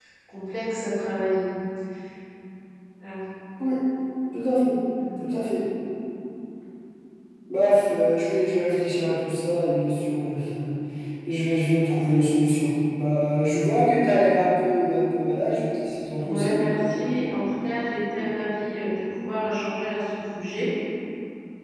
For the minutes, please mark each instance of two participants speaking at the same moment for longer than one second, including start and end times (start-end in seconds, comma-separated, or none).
none